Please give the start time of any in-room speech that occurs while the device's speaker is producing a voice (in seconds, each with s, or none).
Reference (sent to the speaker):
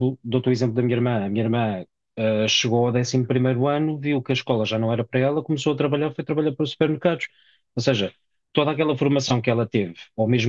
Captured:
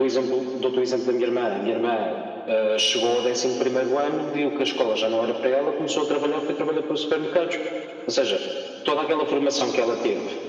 none